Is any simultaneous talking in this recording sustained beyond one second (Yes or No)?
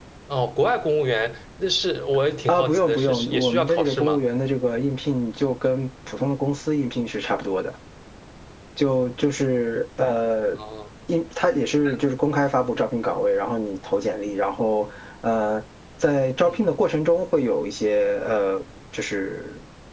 Yes